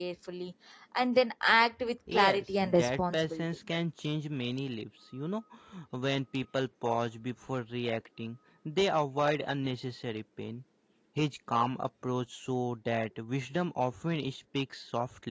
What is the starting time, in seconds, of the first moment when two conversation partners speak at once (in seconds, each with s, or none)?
2.1 s